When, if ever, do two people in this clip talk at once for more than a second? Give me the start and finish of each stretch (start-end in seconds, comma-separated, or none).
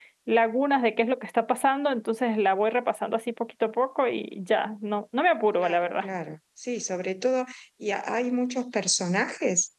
none